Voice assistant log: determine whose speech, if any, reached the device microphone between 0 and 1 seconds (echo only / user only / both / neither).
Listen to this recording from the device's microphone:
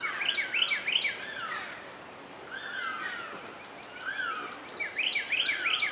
neither